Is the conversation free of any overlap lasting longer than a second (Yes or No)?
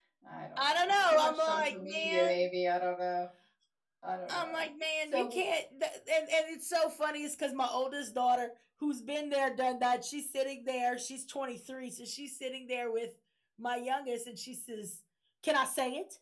No